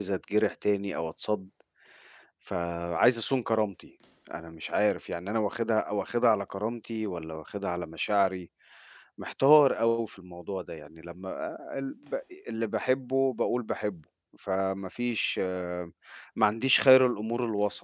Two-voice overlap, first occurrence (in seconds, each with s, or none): none